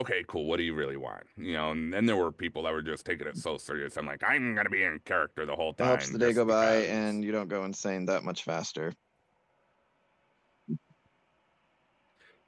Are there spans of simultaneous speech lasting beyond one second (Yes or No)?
Yes